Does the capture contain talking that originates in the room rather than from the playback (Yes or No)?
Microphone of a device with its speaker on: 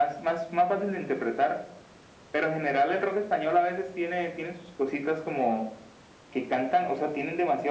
No